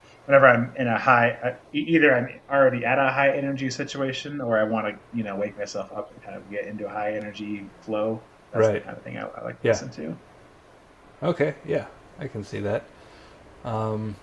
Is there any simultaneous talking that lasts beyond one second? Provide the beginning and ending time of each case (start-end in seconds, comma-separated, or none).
none